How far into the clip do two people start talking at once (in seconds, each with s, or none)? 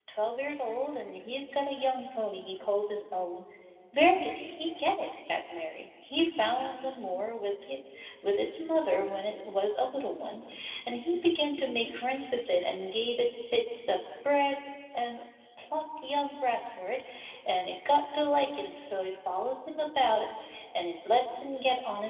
none